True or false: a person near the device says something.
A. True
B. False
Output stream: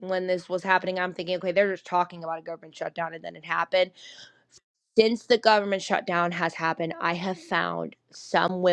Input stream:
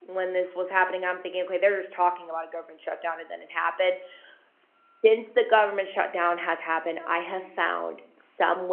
B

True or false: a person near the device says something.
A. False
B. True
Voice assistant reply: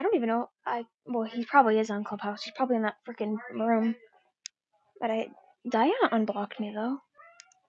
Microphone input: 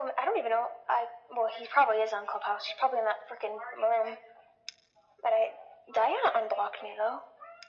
A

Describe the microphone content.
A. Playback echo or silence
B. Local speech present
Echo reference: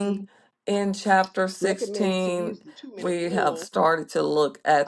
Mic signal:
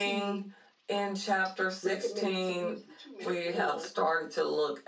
A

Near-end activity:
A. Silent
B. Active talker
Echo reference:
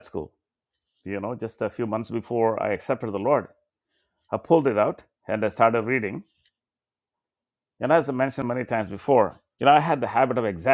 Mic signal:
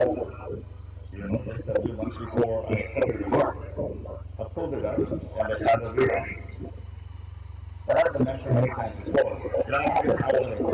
A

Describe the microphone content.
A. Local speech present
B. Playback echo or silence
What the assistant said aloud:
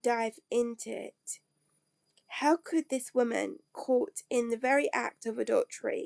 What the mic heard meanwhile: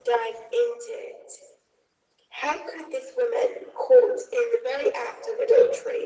B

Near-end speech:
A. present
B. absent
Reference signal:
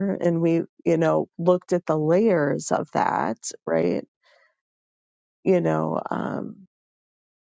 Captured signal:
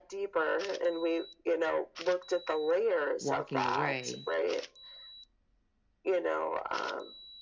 A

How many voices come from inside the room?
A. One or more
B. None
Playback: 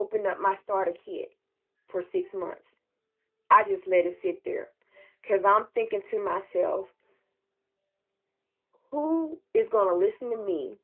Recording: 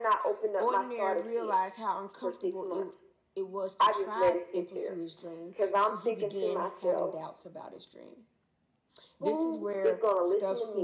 A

